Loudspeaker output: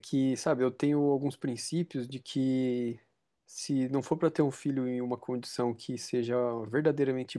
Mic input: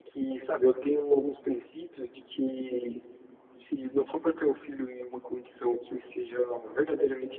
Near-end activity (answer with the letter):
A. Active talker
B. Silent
B